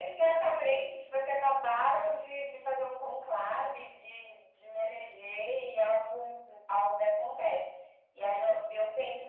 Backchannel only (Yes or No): Yes